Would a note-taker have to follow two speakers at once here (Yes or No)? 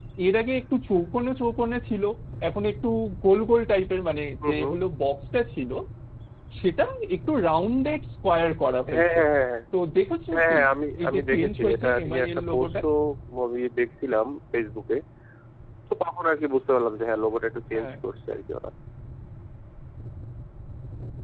Yes